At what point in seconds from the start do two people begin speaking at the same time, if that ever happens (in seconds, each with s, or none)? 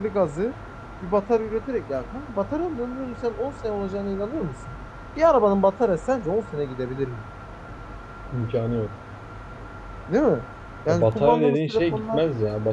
10.9 s